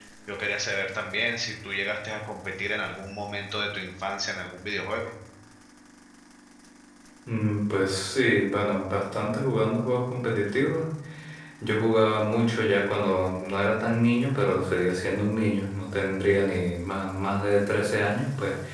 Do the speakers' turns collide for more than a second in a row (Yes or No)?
No